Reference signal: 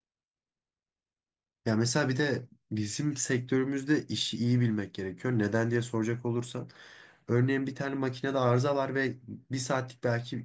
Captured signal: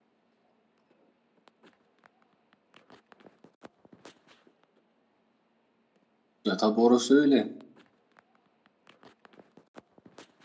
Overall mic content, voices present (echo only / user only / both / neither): user only